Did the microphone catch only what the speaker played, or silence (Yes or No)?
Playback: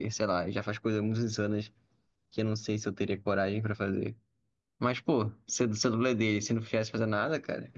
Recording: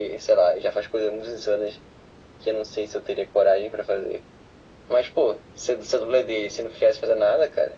Yes